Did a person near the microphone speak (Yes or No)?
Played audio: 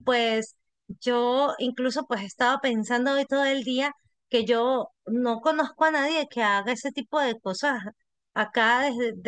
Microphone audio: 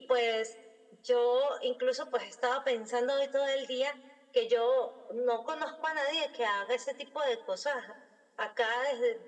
No